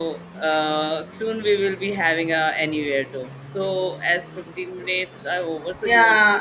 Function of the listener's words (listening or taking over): taking over